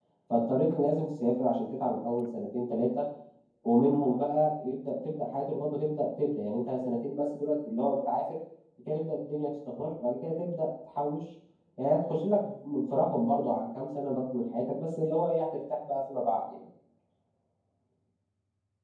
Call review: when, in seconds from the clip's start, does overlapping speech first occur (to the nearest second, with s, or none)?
none